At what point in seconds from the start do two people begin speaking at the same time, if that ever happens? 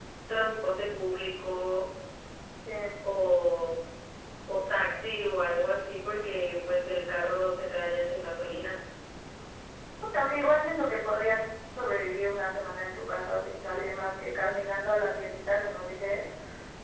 none

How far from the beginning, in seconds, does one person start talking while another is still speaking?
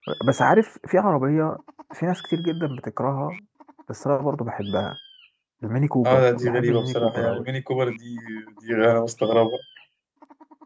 6.0 s

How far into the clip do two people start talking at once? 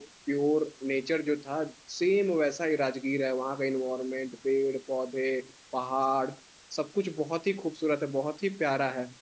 none

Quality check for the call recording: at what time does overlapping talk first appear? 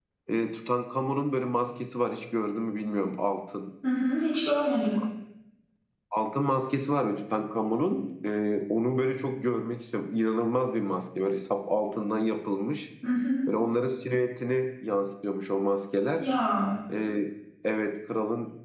none

